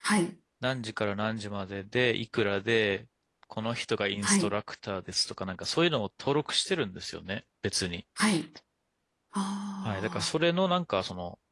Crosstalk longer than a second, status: none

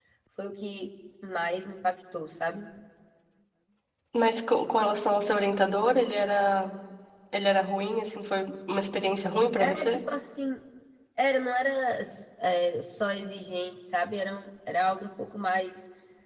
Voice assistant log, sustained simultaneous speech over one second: none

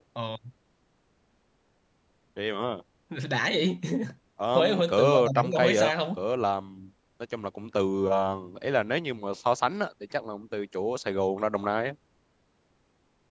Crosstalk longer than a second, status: present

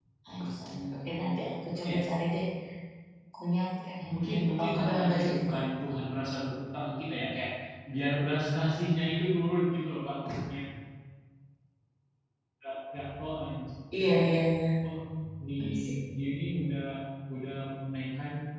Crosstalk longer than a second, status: present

